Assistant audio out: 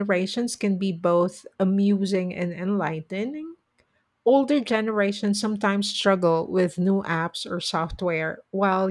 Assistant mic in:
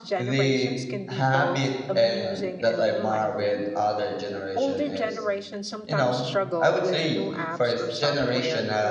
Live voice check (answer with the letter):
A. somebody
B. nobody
A